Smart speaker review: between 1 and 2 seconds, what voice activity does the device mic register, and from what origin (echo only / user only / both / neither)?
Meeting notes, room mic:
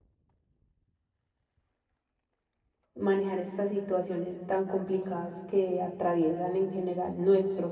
neither